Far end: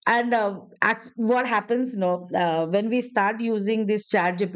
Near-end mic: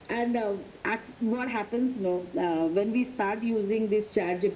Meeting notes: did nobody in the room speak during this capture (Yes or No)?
Yes